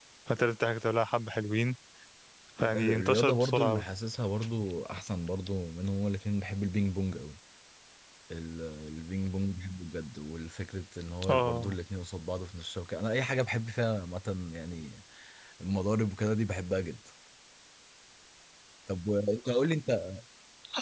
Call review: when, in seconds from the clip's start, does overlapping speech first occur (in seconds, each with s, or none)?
2.6 s